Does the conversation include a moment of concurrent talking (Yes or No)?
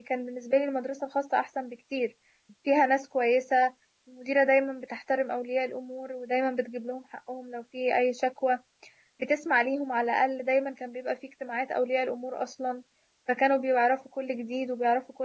No